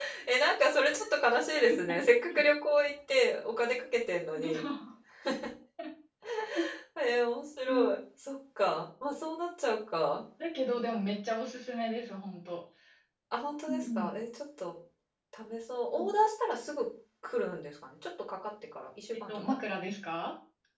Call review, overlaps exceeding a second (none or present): none